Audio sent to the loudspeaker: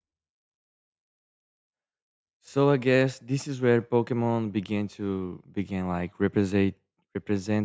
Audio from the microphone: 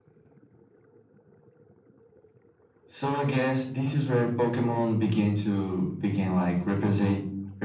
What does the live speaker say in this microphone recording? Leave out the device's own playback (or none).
none